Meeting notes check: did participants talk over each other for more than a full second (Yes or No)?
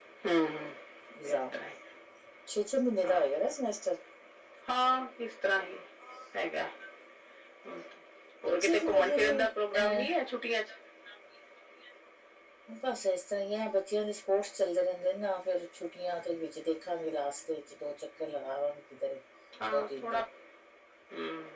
Yes